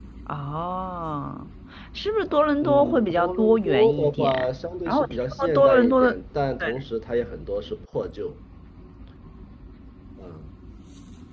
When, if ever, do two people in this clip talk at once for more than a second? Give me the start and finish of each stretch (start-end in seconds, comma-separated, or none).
2.6-4.3, 4.9-6.2